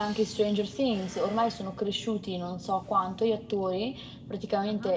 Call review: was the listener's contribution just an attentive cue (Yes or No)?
Yes